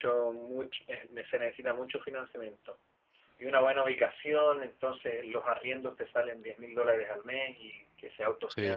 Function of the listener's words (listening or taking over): listening